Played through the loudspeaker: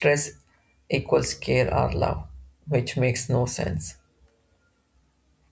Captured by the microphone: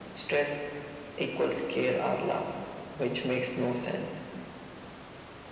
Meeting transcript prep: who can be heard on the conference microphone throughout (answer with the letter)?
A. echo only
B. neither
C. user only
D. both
A